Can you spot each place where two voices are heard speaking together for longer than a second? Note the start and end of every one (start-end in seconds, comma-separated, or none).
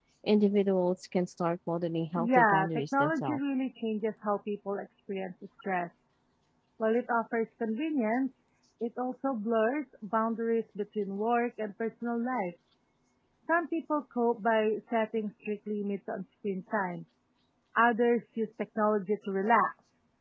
2.2-3.4